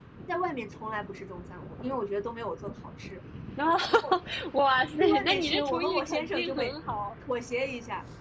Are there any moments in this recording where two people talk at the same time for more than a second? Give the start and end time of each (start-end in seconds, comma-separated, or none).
5.0-6.7